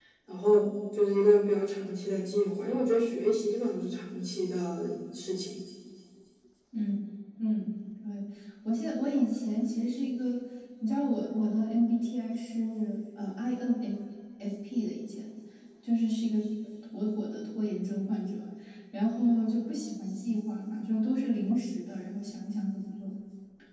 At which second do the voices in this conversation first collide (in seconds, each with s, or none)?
none